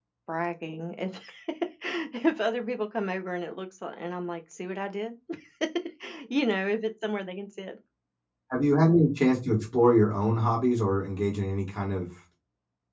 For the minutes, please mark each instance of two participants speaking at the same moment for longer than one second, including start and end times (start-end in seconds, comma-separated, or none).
none